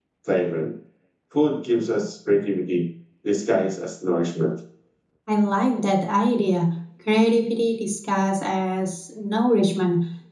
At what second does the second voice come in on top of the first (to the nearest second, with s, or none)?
none